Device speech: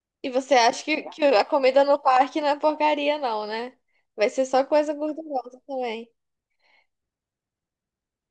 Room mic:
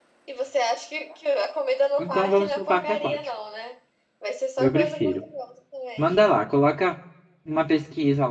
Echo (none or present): present